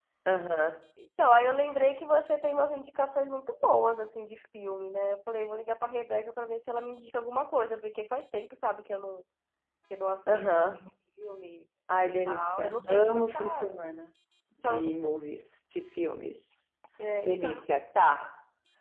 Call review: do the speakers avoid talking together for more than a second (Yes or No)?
No